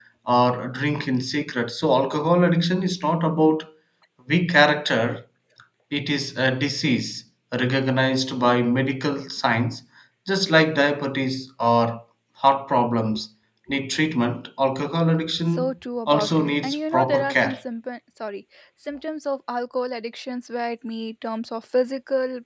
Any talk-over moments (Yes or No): Yes